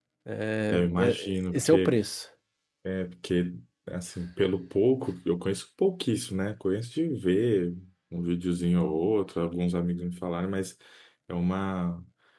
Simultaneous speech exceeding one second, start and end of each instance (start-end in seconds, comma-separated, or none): 0.7-2.0